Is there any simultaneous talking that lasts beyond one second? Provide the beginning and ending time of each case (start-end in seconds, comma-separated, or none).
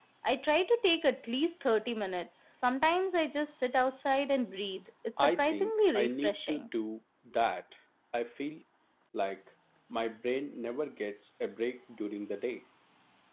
5.2-6.7